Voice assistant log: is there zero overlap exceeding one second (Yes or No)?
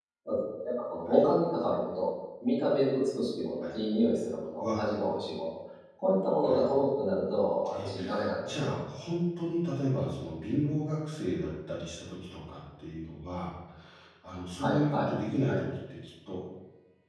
Yes